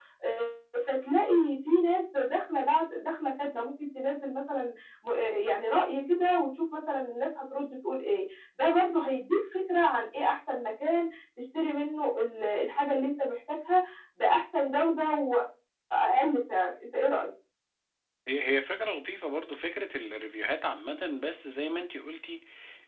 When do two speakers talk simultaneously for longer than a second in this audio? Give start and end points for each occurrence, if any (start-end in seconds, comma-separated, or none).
none